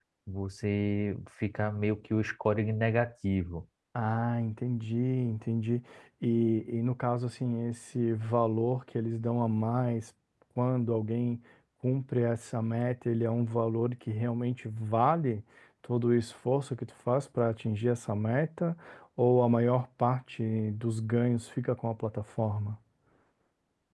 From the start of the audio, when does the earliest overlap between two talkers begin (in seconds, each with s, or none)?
none